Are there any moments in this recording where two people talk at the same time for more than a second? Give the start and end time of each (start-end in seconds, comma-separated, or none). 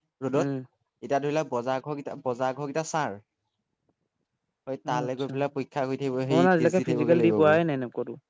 6.3-7.6